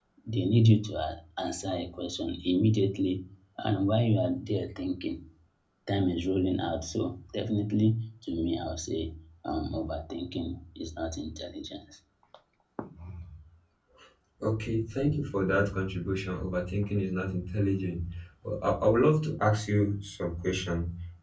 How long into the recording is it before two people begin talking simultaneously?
none

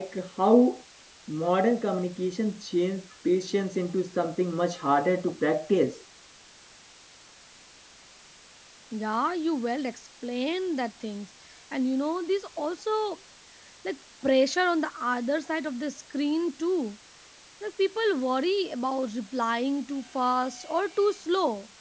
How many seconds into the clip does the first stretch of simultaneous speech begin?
none

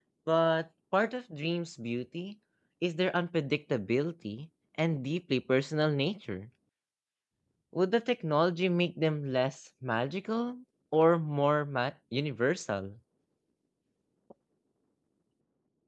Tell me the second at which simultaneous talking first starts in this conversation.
none

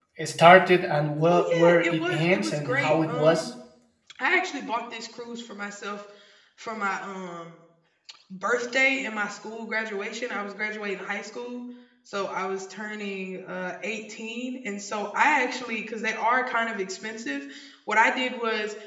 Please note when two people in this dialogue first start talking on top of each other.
1 s

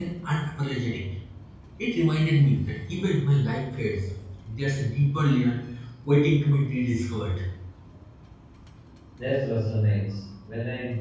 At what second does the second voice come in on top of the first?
none

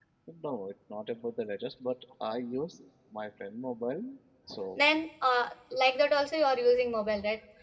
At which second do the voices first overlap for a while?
none

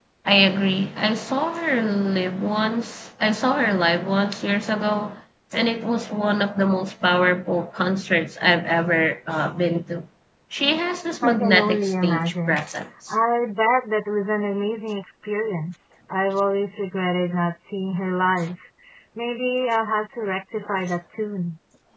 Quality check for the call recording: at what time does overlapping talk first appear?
11 s

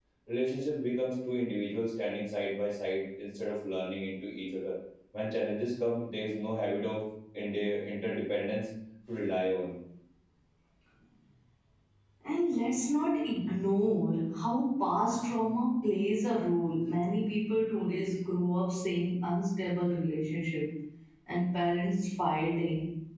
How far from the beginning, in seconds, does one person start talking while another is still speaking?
none

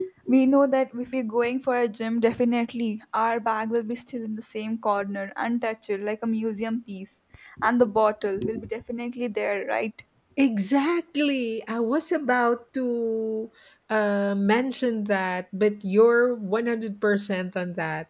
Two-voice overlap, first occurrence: none

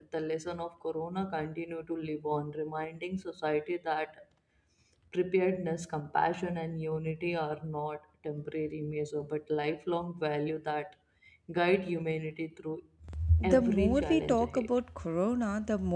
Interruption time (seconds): 13 s

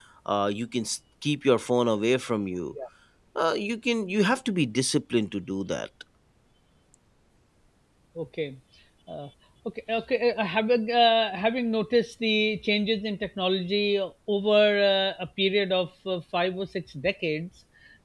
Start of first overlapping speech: none

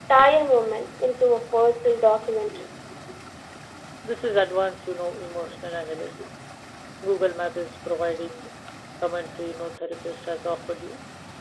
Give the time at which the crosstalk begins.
none

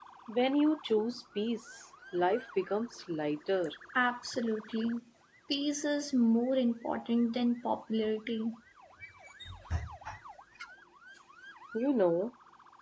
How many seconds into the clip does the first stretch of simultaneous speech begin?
none

